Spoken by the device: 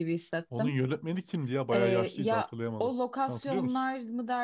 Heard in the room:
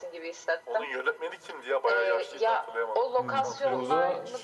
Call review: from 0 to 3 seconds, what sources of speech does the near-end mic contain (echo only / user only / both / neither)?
echo only